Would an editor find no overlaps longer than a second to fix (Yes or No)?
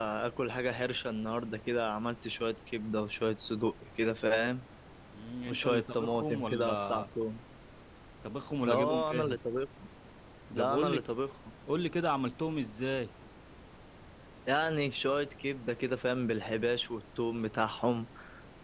No